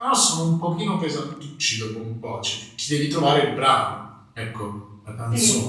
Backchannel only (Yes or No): No